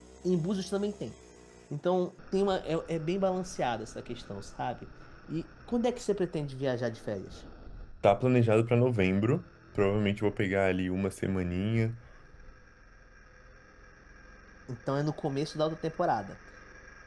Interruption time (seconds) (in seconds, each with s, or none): none